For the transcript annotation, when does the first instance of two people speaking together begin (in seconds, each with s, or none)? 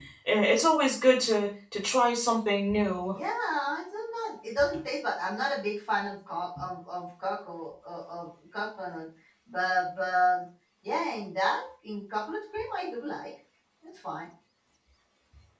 none